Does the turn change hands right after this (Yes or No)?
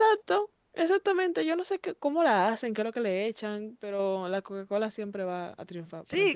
Yes